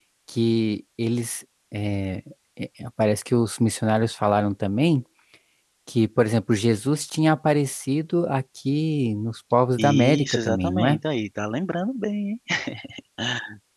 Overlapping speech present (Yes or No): Yes